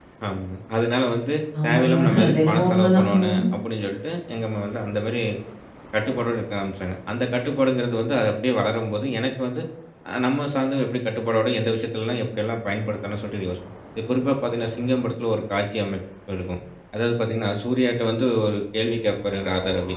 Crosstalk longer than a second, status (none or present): present